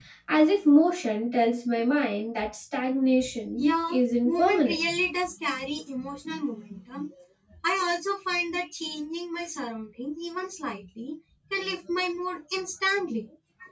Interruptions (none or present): present